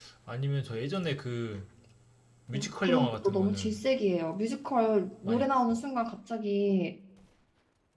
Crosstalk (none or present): present